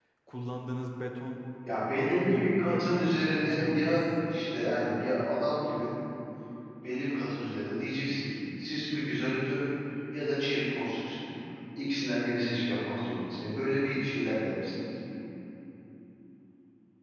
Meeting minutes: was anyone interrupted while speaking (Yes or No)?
Yes